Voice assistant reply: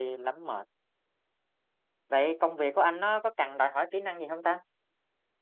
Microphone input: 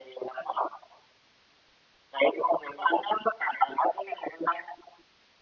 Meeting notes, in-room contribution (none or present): none